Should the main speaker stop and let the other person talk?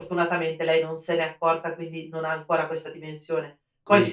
No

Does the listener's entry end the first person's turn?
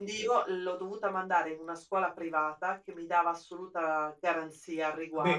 No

